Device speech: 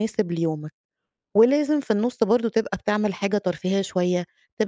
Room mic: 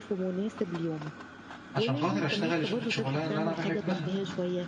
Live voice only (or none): عشان خاطر أشتغل الشغلانة اللي أنا باحبها،